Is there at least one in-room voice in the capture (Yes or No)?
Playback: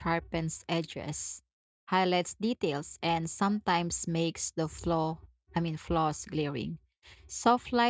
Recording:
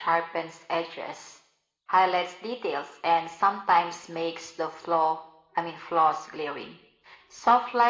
No